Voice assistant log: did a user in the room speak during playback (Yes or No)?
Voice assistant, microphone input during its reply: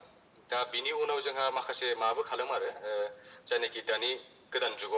No